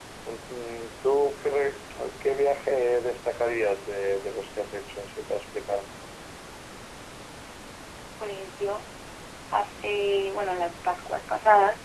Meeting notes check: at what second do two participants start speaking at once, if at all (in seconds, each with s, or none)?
none